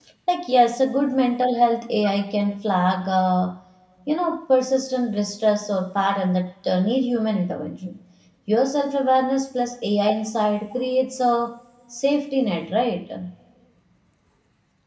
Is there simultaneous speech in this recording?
No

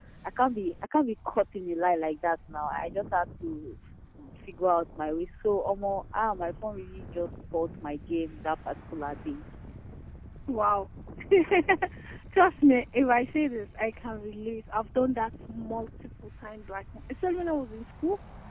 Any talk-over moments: No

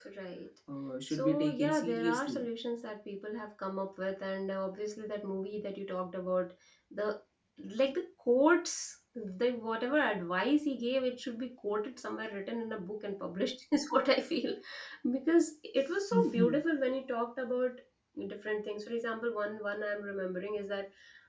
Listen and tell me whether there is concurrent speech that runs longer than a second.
Yes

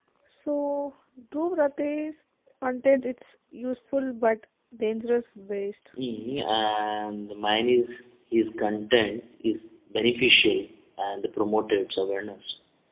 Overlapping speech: No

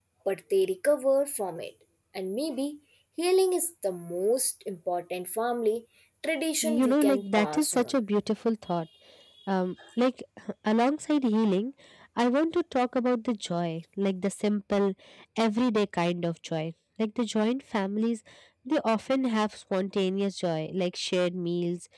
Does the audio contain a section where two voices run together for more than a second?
Yes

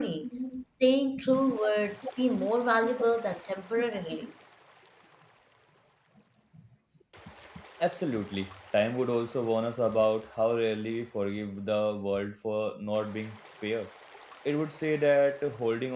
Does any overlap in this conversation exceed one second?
No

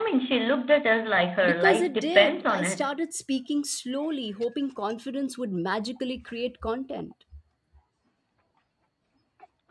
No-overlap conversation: No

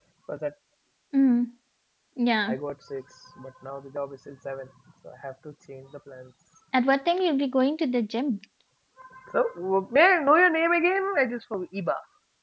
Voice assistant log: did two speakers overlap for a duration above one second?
No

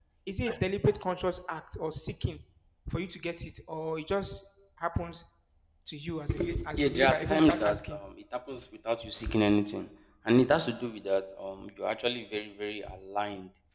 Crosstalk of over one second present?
Yes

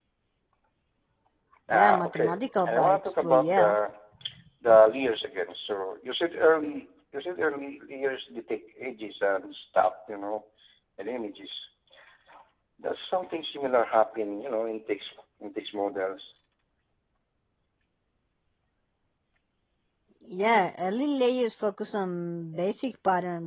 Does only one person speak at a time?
No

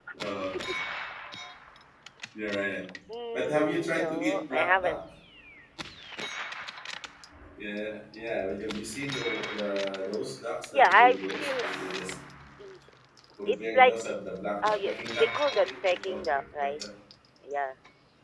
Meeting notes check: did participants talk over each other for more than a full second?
Yes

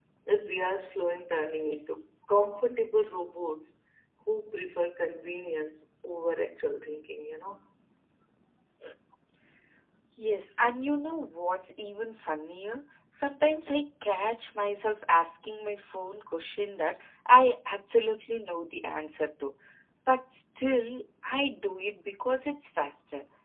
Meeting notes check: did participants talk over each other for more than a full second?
No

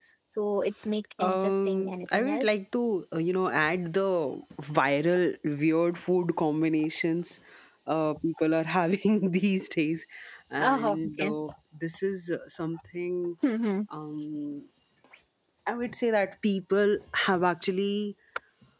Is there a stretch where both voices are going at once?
Yes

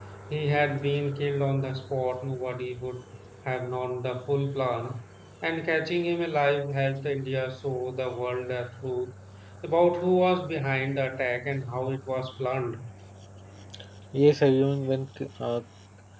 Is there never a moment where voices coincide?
Yes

